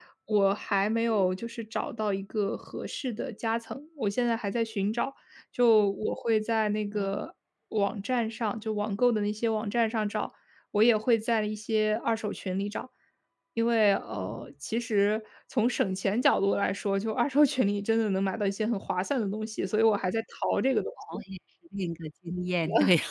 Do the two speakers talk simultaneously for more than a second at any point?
No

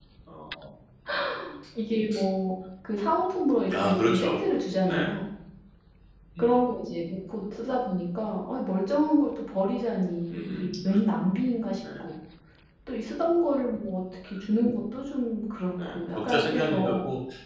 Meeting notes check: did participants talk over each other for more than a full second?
Yes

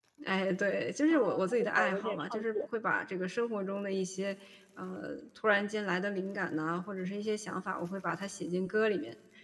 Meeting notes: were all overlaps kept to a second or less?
No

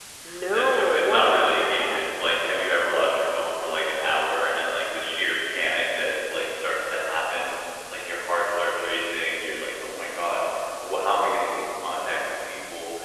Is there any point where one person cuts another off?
Yes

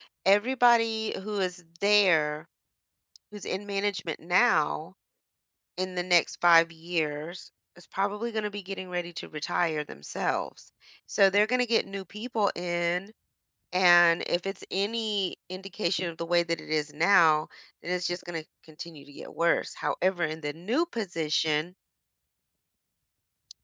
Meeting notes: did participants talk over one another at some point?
No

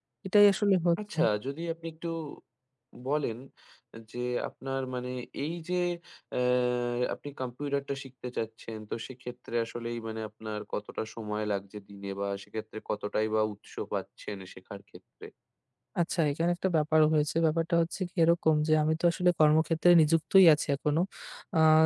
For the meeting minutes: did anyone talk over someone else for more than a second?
No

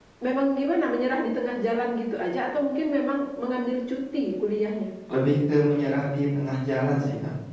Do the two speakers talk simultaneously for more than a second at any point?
No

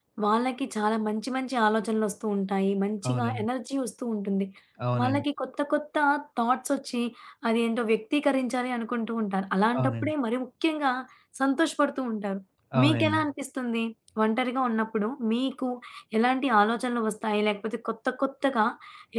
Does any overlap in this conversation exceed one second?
No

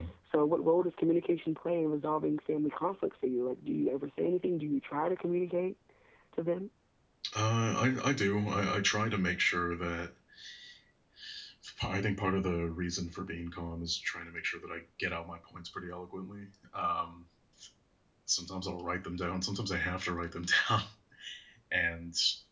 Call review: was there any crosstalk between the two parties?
No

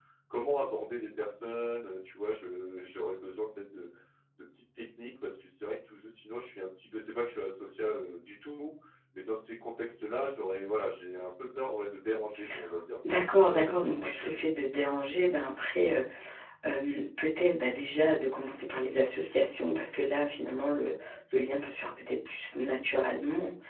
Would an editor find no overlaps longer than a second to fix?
No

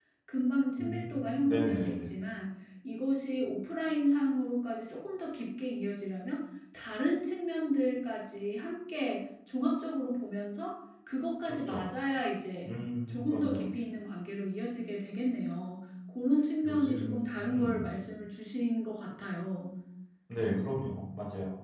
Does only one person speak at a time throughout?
No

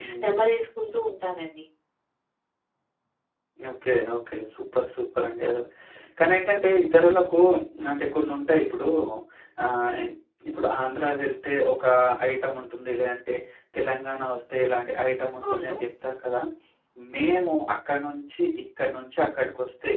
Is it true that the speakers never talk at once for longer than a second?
Yes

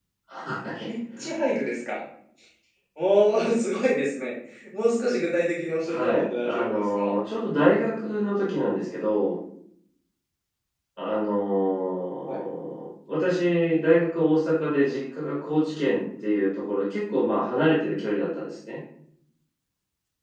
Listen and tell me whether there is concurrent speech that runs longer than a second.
Yes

